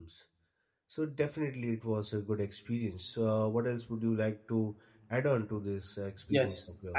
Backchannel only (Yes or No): No